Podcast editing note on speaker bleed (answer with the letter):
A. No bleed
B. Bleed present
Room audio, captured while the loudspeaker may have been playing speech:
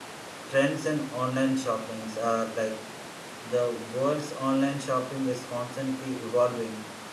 A